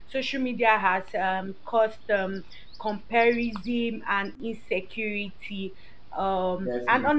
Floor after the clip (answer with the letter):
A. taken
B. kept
B